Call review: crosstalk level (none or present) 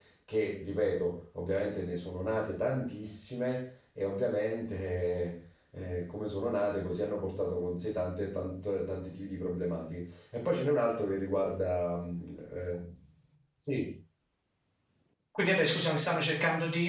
none